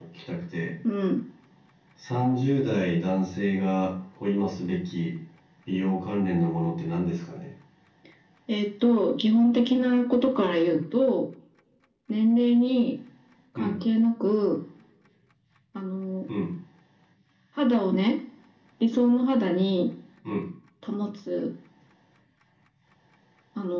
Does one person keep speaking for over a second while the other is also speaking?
No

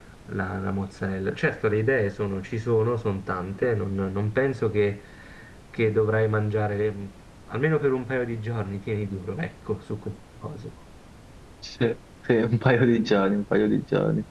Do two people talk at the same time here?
No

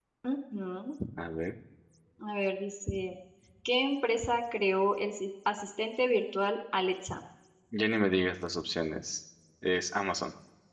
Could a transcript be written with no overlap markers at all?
Yes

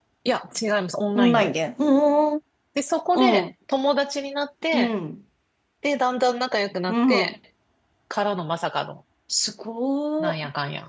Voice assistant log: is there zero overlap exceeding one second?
Yes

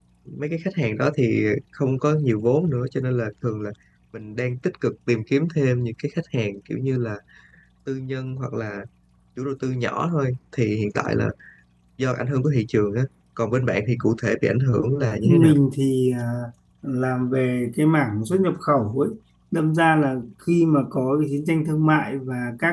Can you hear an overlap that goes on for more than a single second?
No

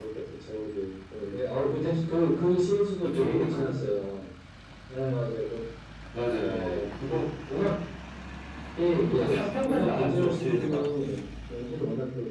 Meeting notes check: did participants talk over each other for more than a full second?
Yes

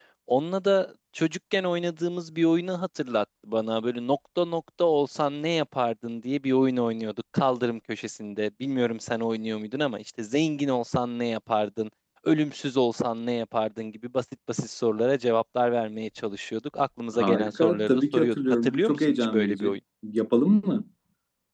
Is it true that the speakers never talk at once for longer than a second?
No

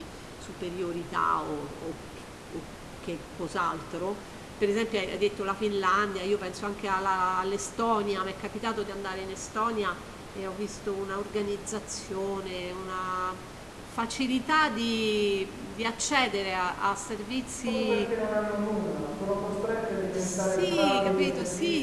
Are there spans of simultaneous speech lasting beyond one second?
Yes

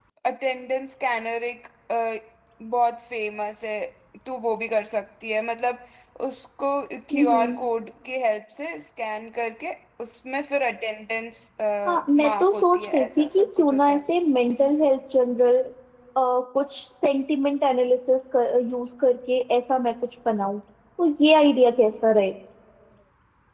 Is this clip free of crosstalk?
No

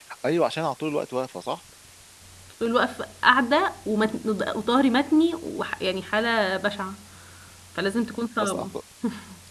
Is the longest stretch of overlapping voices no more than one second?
Yes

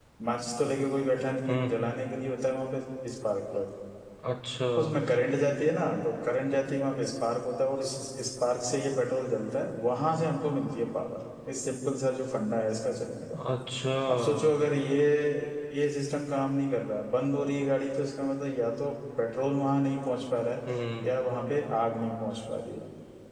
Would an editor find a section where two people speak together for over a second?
No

